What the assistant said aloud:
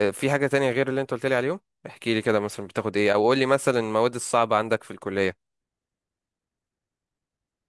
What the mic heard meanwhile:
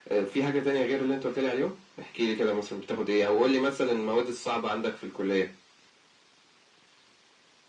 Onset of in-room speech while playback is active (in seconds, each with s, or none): none